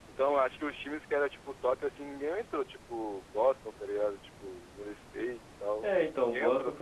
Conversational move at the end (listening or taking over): taking over